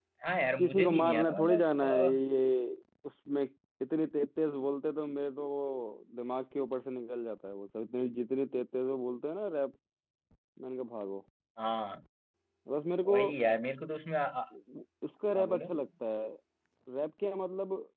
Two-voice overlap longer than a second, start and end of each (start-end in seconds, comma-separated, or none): 0.6-2.2